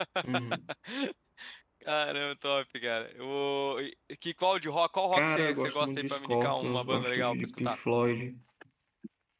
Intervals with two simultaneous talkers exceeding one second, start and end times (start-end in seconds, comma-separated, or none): 5.1-7.8